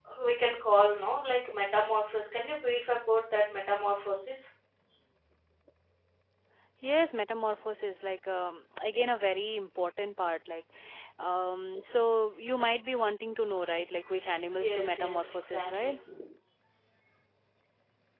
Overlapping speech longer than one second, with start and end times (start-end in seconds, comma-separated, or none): 14.6-15.9